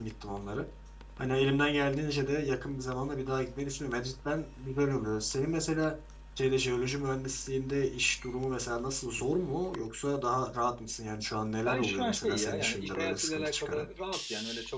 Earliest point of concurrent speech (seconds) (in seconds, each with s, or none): 11.6 s